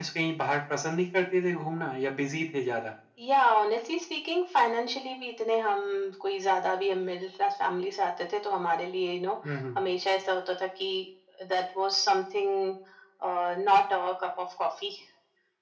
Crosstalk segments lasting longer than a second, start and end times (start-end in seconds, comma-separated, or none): none